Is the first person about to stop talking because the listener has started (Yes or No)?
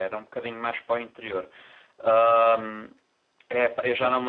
No